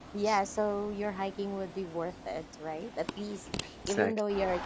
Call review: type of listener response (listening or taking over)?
listening